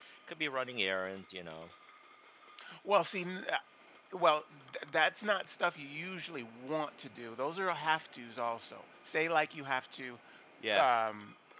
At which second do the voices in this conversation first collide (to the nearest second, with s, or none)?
none